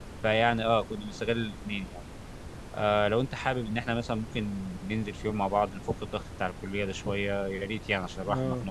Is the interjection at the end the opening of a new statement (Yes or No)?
Yes